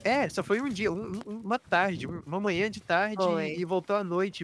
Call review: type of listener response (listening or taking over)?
listening